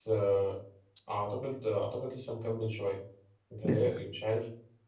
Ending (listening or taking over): listening